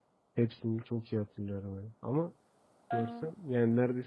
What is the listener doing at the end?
listening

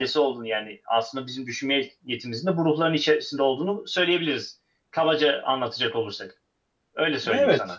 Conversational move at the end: taking over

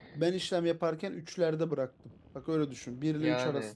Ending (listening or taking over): listening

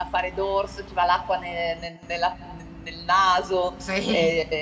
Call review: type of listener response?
listening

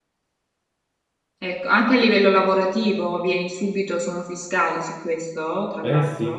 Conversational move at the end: taking over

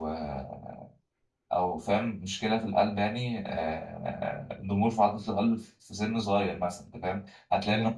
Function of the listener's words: listening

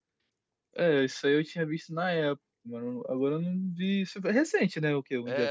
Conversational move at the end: taking over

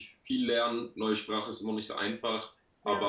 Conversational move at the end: listening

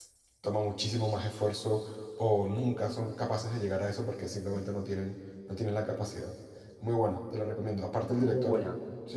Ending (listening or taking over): listening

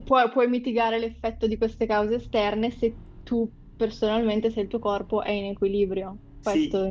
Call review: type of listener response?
taking over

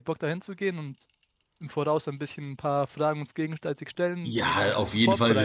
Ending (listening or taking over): taking over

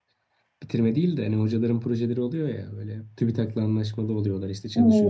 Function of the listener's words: taking over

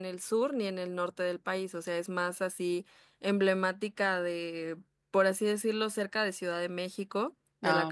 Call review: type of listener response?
listening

